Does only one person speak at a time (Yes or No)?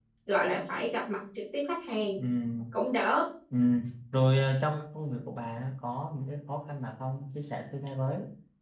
Yes